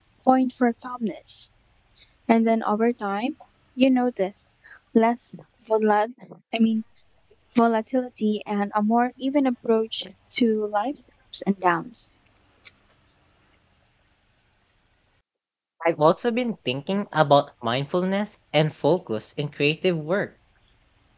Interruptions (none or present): none